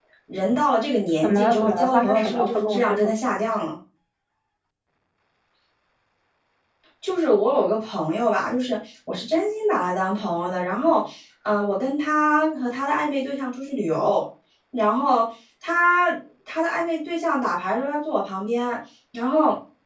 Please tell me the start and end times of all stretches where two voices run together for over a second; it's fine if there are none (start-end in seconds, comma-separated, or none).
1.2-3.1